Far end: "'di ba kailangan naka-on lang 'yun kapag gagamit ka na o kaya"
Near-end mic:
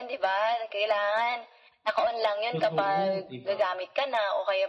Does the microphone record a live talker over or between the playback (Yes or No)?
Yes